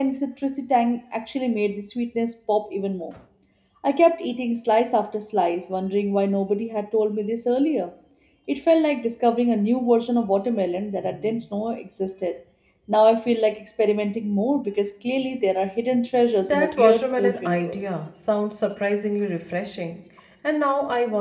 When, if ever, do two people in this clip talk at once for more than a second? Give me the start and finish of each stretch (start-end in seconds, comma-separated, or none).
16.4-18.0